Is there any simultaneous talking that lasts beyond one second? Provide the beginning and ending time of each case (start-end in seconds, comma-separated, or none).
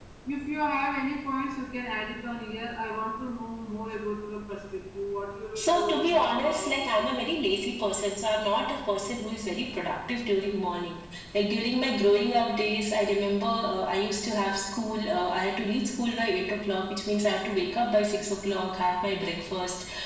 5.6-7.2